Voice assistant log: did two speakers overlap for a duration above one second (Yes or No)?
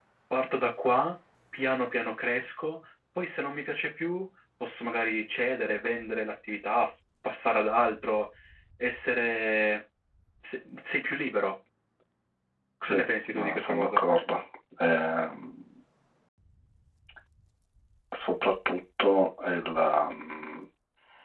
Yes